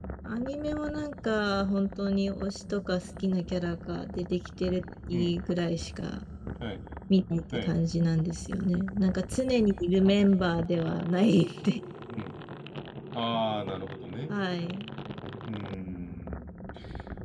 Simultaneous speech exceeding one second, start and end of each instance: none

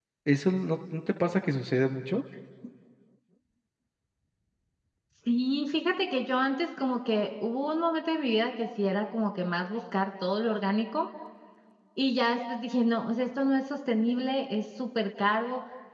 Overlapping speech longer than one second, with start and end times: none

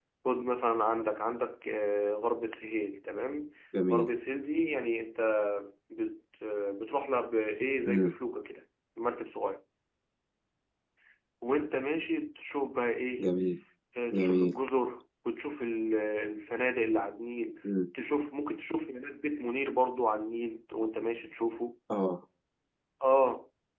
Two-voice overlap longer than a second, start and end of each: none

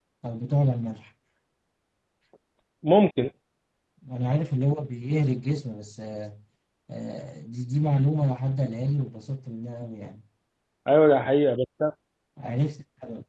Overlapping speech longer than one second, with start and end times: none

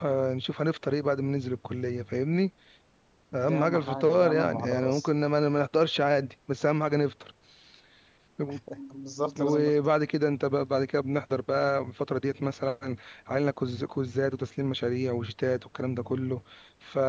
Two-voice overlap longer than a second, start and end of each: 3.4-5.1

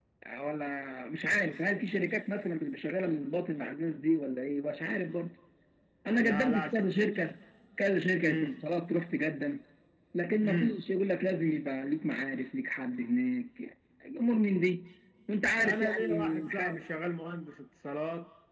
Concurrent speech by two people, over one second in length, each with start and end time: 15.6-16.8

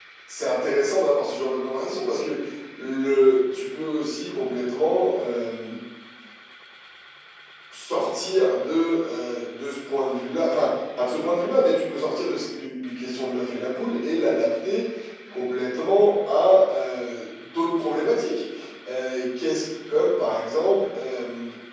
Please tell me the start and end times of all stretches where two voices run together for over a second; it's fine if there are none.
none

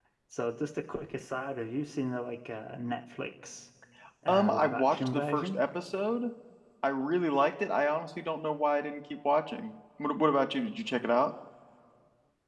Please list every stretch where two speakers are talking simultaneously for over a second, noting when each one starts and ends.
4.3-5.5

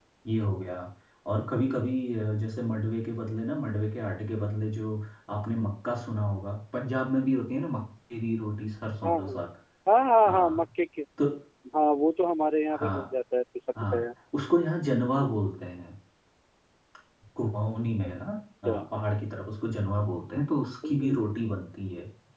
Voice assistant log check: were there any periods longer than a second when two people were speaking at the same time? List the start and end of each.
none

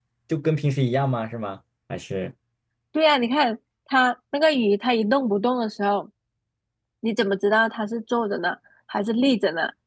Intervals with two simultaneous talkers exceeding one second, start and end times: none

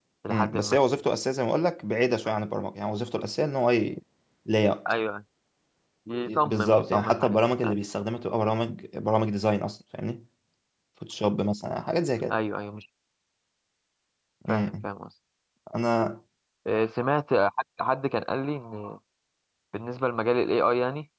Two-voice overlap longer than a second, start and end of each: 6.2-7.8

